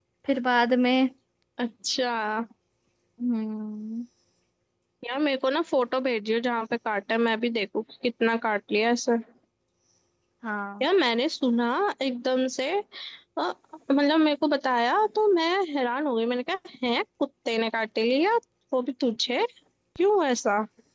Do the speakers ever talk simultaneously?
No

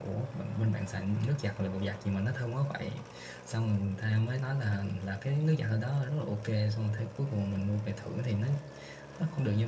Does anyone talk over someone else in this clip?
No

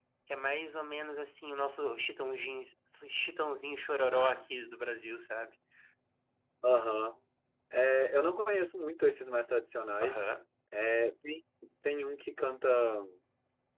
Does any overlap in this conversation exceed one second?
No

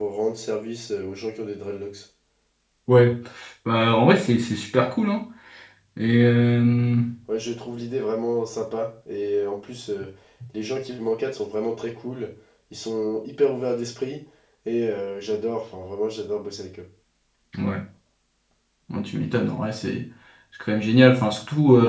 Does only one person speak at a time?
Yes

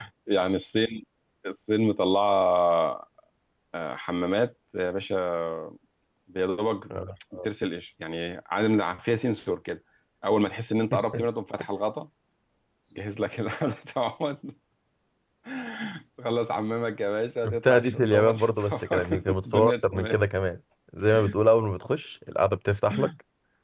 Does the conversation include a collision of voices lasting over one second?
Yes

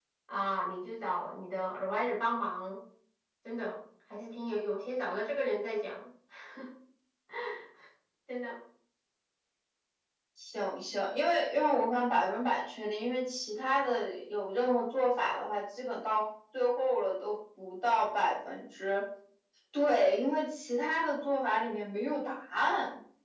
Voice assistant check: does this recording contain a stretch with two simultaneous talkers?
No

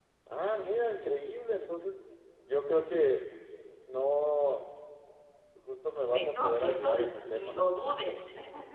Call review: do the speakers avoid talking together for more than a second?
No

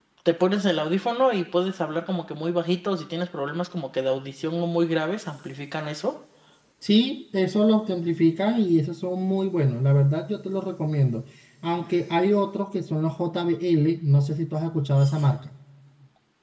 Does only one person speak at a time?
Yes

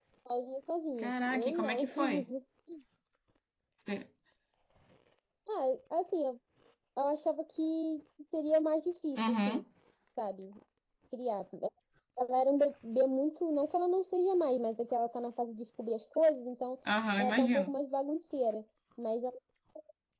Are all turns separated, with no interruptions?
No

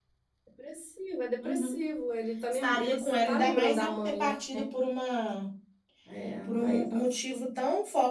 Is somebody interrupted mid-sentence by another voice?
Yes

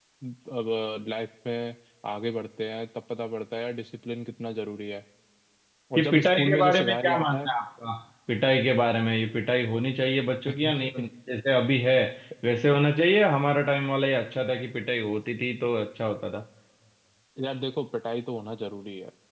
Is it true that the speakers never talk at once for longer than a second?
No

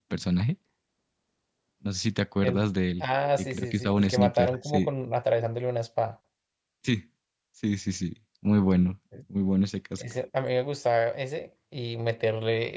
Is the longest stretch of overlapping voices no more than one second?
No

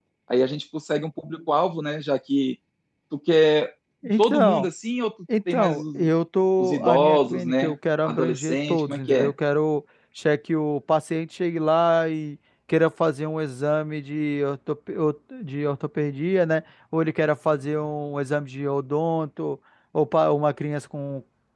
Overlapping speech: Yes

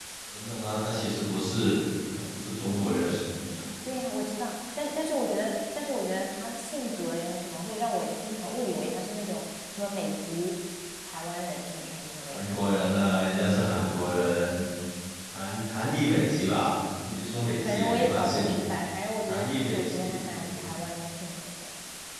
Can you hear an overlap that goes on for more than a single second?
Yes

